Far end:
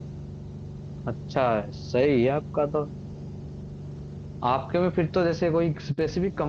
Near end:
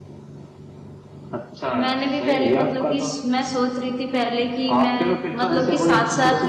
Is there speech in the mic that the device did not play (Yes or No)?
Yes